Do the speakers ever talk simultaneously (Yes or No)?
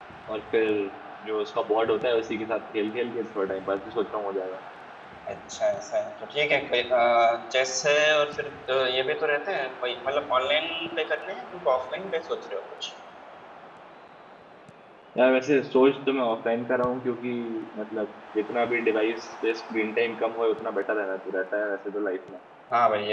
No